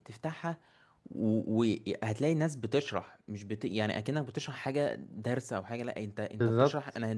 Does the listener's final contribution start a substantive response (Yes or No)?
No